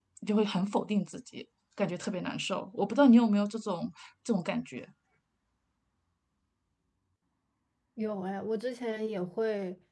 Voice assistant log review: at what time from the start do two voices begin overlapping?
none

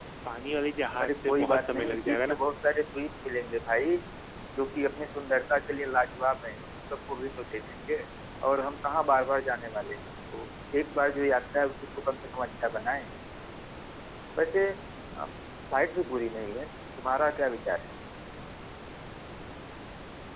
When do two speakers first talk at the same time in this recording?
1 s

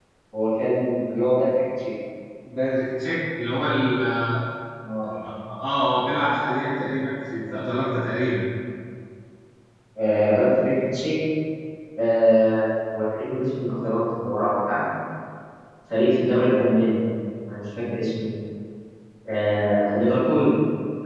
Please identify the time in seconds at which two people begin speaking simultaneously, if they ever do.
none

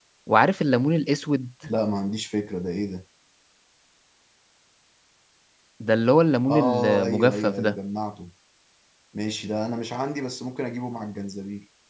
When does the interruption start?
7 s

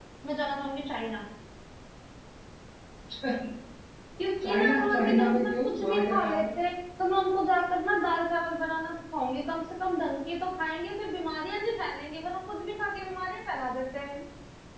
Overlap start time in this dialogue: 4 s

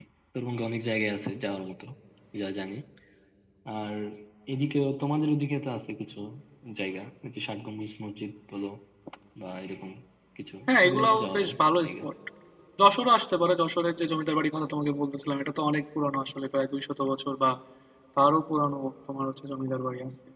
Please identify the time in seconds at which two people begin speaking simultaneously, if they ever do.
11 s

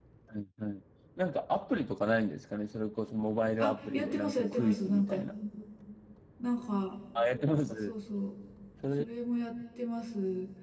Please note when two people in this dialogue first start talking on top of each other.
4 s

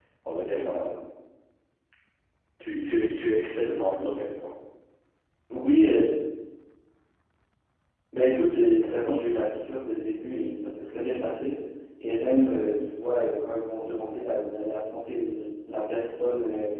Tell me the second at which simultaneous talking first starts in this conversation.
none

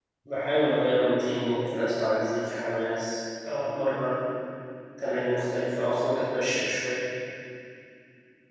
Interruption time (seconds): none

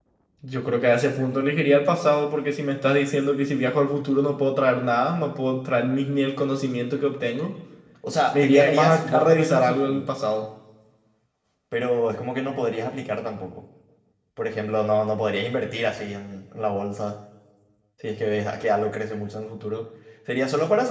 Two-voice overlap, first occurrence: 8 s

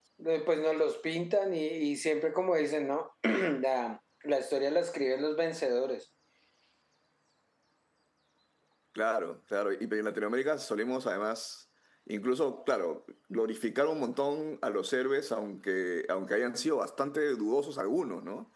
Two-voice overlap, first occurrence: none

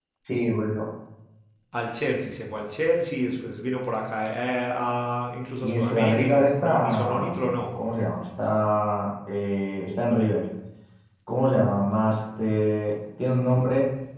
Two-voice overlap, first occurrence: 6 s

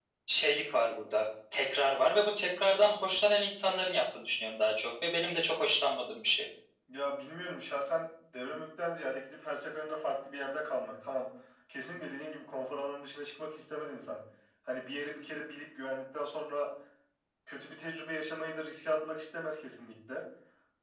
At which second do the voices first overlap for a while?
none

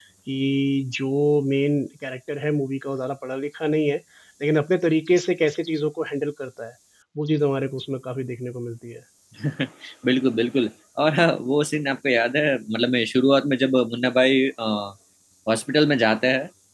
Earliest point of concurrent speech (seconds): none

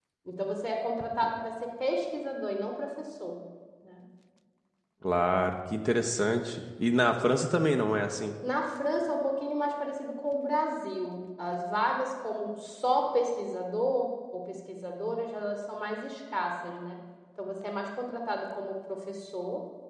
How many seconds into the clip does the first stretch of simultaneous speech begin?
none

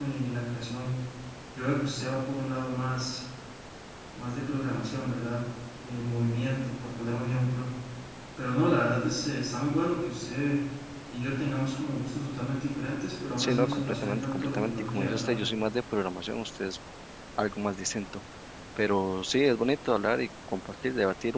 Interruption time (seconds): 13 s

